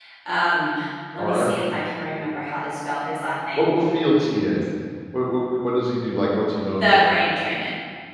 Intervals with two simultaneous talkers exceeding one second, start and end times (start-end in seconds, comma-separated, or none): none